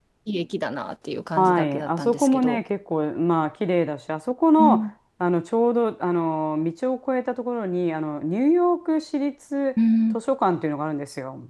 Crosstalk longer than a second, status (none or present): present